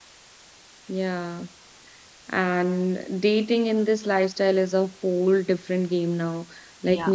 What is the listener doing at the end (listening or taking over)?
listening